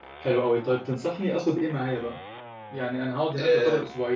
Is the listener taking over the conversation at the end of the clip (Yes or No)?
No